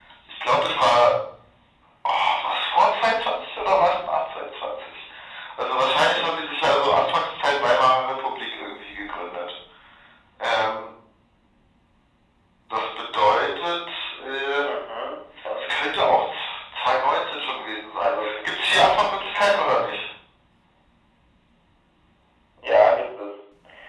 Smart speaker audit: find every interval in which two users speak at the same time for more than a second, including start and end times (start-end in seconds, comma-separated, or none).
none